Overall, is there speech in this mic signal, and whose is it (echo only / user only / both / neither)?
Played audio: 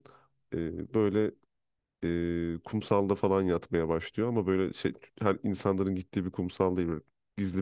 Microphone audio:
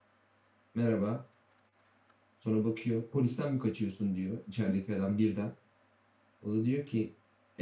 user only